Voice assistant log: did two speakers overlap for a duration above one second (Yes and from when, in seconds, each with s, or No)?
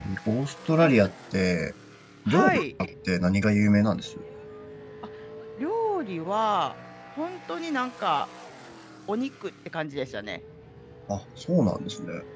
No